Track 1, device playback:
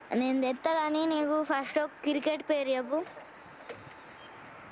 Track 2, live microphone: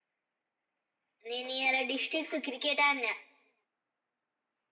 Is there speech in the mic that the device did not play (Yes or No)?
Yes